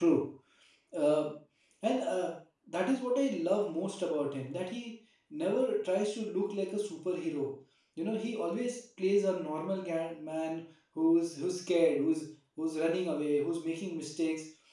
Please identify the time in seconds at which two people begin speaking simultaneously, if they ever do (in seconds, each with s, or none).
none